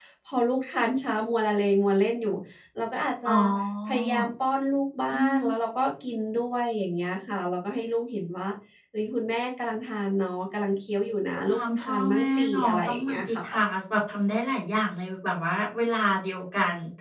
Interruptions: present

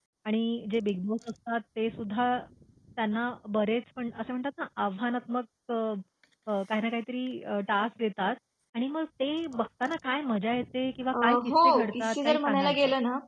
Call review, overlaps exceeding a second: present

